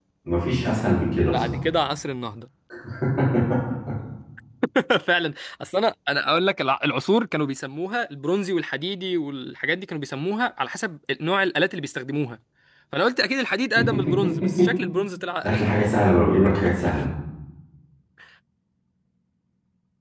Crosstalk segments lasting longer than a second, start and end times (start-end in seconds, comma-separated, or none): none